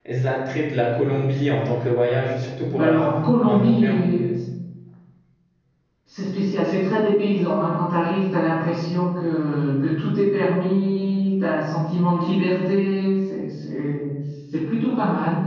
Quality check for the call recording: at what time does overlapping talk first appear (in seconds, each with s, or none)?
2.8 s